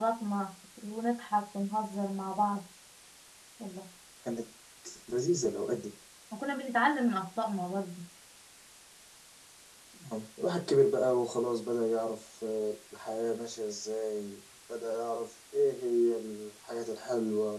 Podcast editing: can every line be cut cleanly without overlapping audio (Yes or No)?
Yes